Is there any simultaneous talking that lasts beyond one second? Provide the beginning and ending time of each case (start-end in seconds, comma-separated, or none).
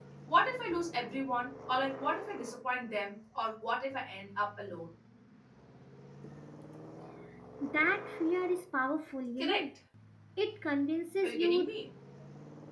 none